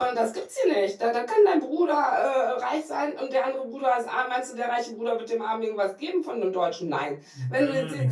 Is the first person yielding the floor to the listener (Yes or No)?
No